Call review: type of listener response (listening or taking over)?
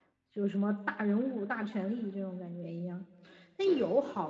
listening